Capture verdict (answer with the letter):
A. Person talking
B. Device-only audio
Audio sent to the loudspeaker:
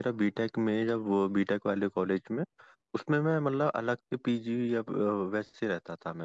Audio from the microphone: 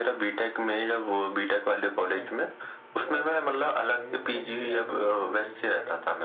A